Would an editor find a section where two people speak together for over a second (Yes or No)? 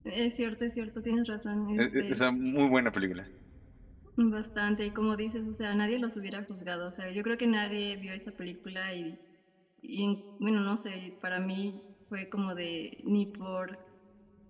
No